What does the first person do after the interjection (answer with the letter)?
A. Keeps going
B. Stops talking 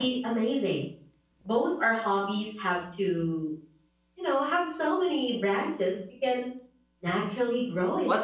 B